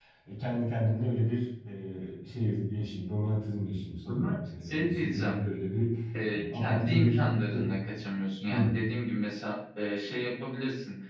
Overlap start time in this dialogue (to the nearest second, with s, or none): 4 s